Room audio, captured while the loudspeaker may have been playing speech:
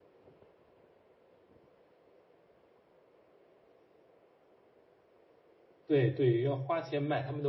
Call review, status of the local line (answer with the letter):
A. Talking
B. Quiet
A